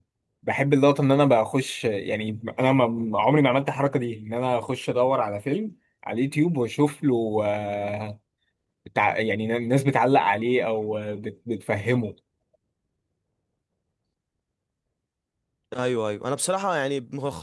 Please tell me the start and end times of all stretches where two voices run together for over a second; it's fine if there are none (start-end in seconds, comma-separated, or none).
none